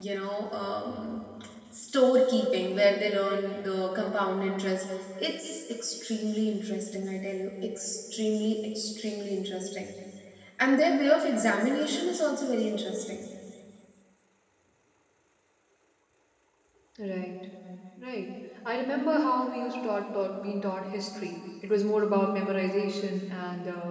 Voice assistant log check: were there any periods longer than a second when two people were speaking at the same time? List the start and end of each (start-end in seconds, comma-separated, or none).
none